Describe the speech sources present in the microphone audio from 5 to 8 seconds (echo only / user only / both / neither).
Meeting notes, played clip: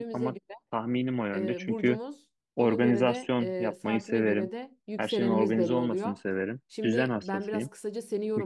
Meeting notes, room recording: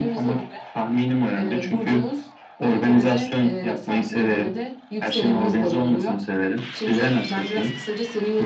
echo only